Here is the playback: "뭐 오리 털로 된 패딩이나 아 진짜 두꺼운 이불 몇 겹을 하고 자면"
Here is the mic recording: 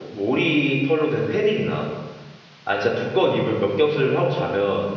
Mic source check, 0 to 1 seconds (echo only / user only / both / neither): echo only